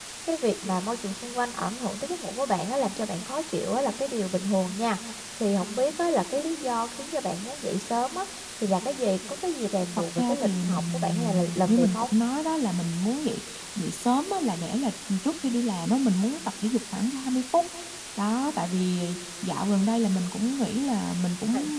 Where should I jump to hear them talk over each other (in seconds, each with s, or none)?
10.2 s